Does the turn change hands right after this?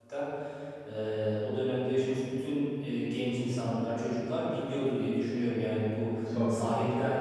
No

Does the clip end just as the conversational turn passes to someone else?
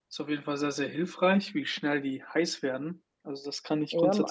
Yes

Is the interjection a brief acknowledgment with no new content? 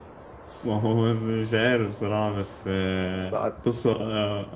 Yes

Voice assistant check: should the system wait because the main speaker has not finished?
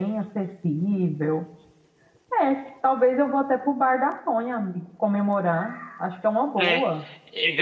No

